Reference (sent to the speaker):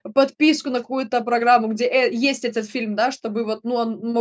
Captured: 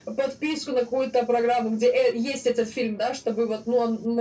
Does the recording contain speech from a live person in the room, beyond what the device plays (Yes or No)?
No